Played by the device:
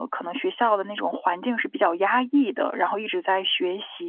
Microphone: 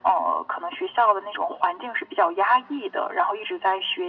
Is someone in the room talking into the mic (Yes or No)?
No